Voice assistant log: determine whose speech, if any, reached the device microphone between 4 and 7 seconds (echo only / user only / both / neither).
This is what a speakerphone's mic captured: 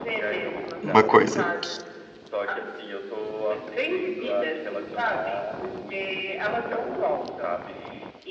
echo only